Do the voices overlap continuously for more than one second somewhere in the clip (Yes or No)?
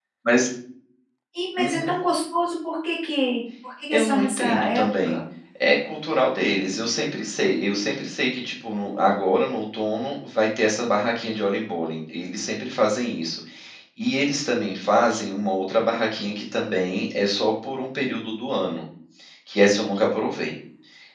Yes